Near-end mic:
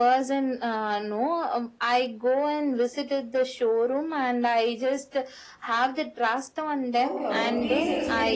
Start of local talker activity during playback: 7.0 s

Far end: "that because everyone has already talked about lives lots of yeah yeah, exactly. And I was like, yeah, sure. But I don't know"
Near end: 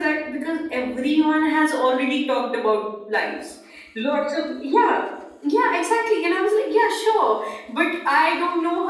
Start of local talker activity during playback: none

